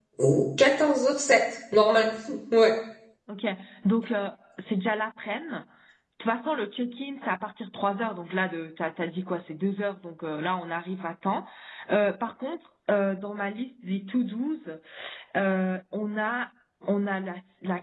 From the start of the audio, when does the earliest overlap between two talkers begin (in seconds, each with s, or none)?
none